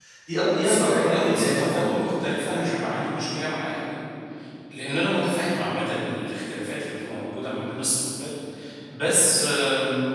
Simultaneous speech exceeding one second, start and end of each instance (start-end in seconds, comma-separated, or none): 0.6-2.2